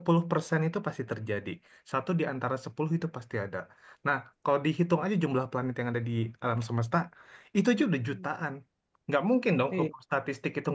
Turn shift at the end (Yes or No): No